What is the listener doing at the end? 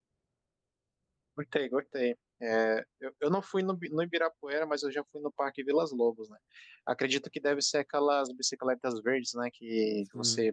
listening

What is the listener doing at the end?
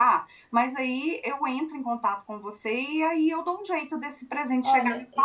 taking over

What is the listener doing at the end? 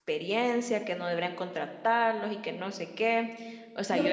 taking over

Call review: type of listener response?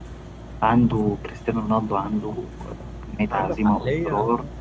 taking over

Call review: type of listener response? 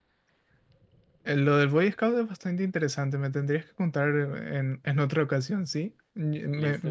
listening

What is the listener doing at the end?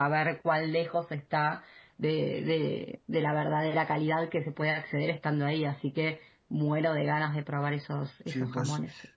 taking over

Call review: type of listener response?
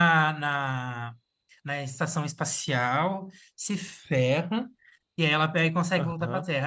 listening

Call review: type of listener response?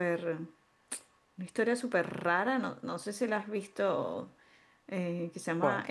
listening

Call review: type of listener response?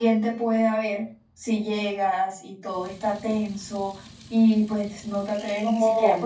taking over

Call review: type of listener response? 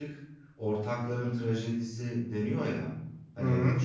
listening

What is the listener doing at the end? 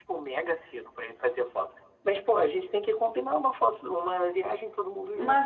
taking over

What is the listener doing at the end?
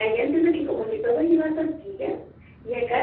listening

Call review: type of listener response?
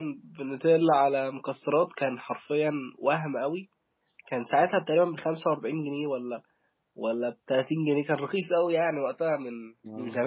taking over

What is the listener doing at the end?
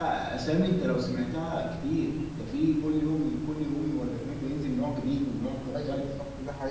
taking over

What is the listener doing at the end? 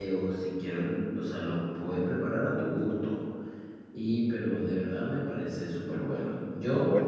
listening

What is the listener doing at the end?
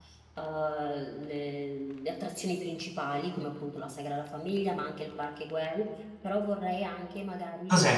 taking over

